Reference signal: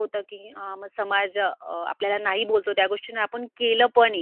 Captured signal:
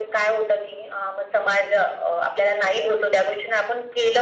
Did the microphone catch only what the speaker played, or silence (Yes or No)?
Yes